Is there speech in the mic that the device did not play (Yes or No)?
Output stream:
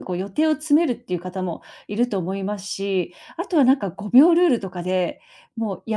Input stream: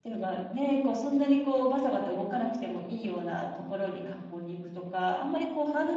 Yes